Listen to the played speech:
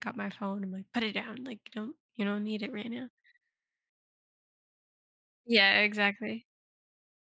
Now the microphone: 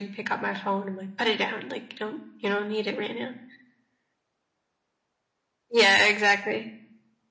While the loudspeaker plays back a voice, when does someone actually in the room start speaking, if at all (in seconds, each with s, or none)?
none